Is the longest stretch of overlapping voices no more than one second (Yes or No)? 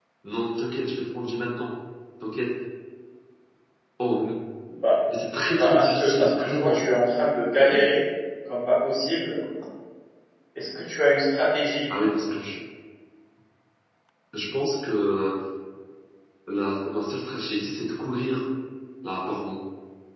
No